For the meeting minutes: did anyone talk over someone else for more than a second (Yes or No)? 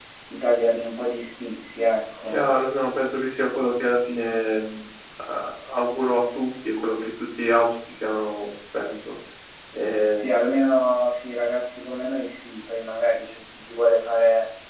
No